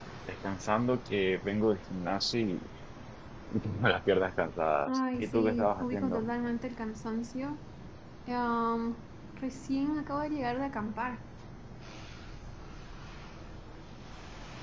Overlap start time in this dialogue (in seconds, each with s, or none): 4.9 s